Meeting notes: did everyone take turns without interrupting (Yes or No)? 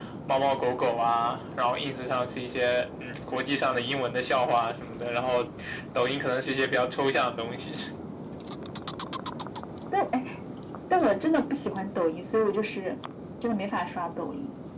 Yes